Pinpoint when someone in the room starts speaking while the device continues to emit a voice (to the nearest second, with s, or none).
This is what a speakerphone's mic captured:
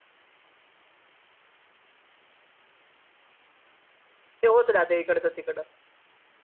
4 s